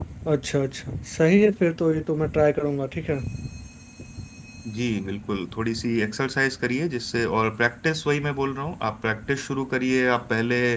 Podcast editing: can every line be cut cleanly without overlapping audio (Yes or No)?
Yes